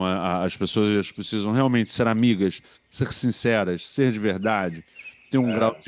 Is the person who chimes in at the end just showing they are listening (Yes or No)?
Yes